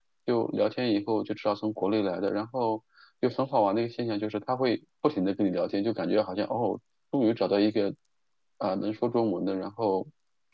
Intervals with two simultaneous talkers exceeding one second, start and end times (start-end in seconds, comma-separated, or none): none